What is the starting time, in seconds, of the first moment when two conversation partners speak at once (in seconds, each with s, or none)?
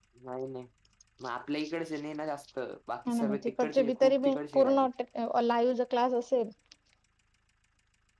3.0 s